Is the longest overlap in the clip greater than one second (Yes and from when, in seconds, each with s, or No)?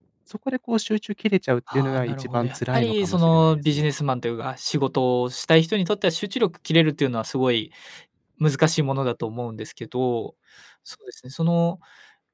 Yes, from 1.7 s